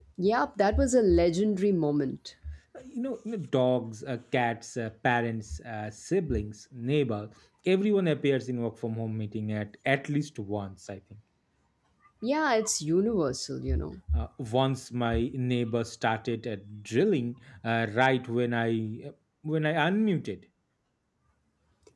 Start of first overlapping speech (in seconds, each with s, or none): none